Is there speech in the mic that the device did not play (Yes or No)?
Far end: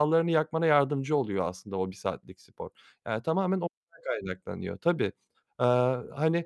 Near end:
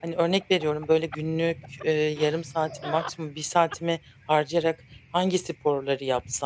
Yes